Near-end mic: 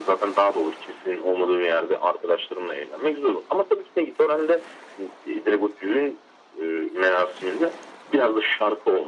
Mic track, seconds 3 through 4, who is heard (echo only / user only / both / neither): echo only